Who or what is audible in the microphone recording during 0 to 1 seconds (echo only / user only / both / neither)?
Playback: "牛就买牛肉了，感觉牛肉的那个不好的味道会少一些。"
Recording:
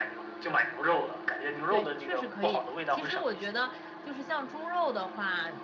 echo only